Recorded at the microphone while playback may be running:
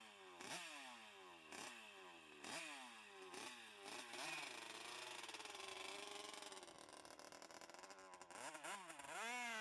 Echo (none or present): none